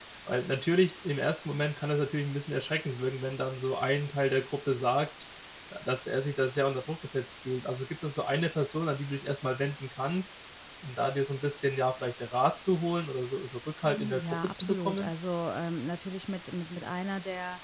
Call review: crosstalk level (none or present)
present